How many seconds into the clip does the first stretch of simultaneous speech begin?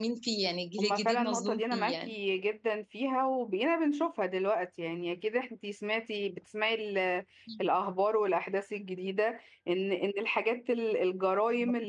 0.8 s

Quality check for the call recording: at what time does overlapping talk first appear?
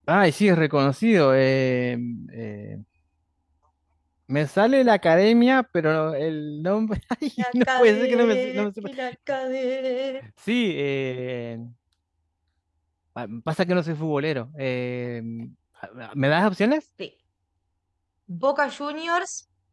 7.7 s

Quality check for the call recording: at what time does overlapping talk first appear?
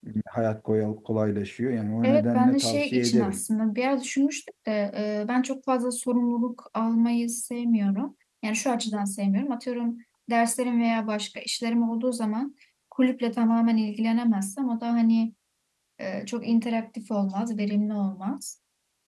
2.0 s

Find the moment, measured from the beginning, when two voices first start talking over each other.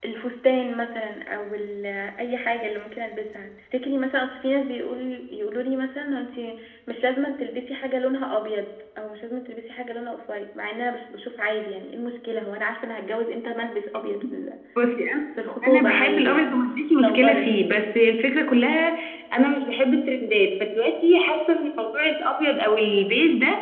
15.7 s

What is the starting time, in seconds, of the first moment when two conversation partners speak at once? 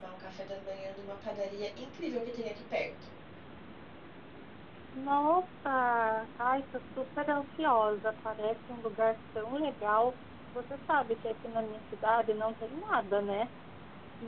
none

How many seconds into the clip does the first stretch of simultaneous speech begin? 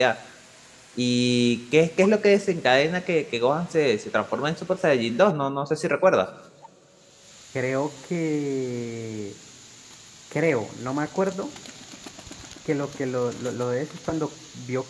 none

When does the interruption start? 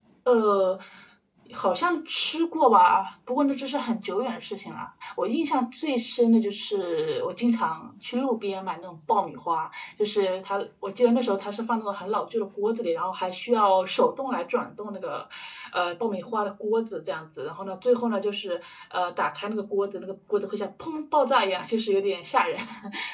none

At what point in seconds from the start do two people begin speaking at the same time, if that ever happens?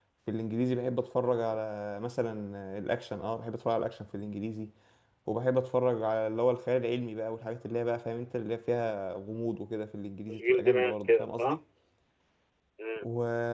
10.3 s

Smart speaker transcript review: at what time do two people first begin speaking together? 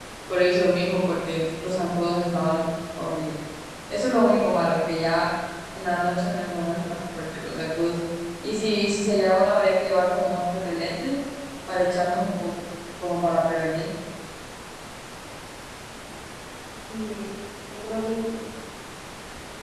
none

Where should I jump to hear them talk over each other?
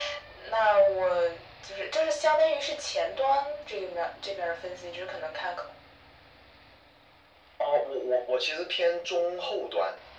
none

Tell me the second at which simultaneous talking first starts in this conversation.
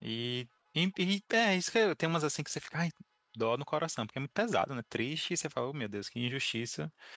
none

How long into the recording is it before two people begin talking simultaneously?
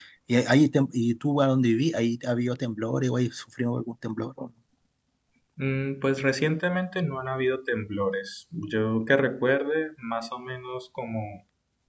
none

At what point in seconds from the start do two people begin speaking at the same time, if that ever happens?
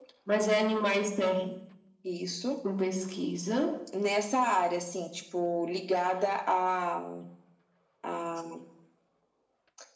none

